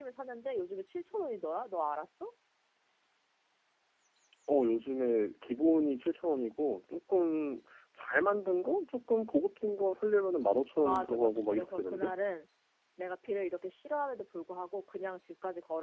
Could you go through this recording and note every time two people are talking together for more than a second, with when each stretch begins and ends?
10.8-12.1

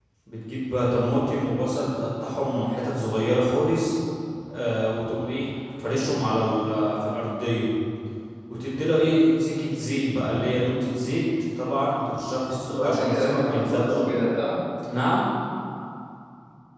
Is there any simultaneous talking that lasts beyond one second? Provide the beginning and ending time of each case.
12.7-14.0

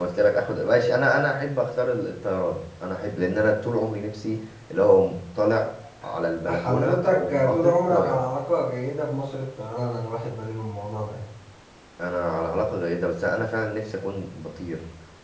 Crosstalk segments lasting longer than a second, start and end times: 6.5-8.2

